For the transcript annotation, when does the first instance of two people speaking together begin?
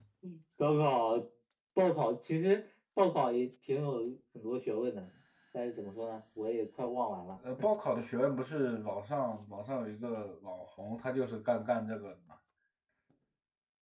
none

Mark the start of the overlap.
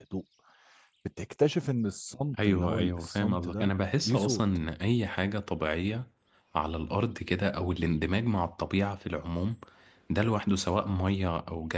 2.4 s

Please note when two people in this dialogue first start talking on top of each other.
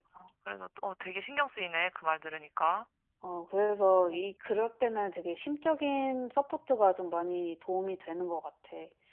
none

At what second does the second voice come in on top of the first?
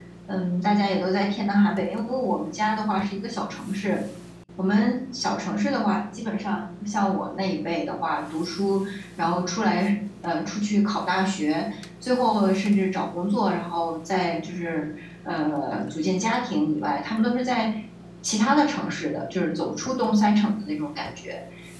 none

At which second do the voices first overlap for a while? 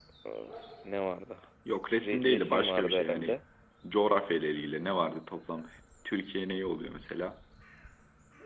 2.0 s

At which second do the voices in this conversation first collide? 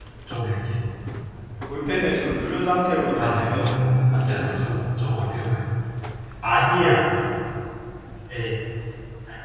3.1 s

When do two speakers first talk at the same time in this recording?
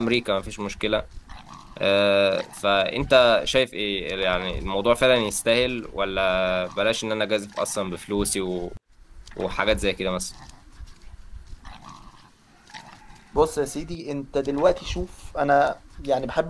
none

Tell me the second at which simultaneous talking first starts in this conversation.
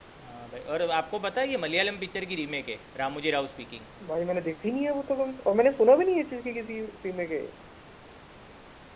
none

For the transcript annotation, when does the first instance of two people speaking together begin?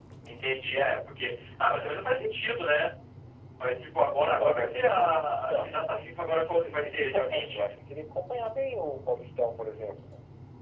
4.4 s

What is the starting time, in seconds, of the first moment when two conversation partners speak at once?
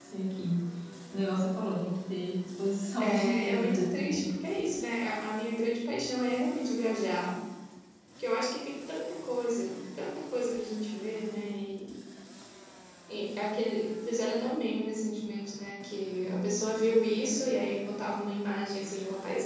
3.0 s

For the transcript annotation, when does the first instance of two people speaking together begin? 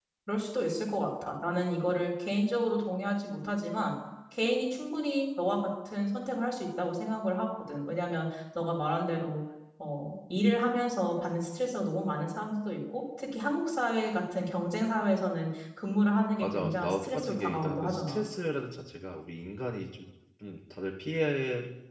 16.4 s

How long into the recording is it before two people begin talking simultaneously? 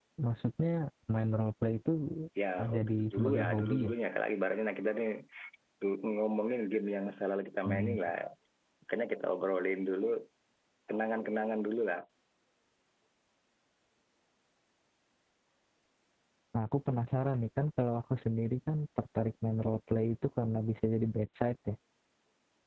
2.6 s

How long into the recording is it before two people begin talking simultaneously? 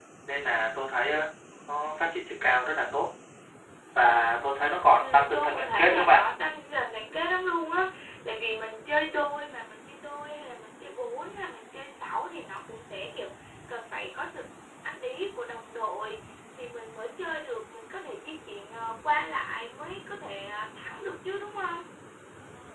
5.0 s

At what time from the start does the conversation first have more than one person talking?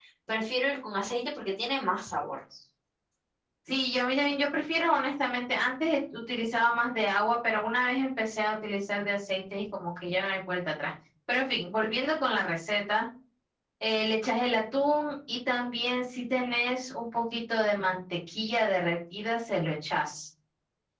none

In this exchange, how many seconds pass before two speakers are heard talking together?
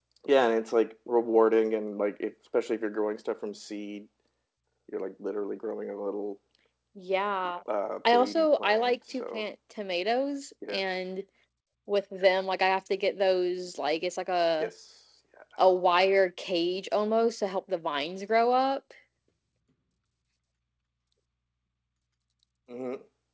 8.1 s

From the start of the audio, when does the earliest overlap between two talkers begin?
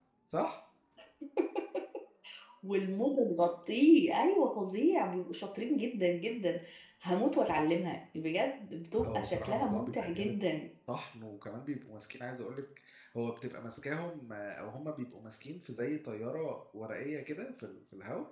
9.0 s

